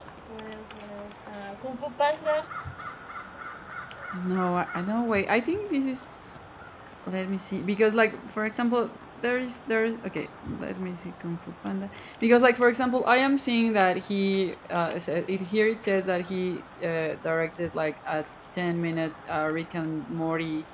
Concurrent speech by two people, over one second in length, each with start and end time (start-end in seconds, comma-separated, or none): none